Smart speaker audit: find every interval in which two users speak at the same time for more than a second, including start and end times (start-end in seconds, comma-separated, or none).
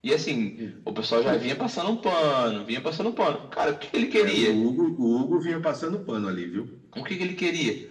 none